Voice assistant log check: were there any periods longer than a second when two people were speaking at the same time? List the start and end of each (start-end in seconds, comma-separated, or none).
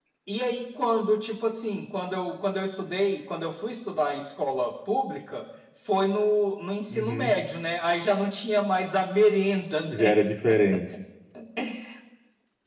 none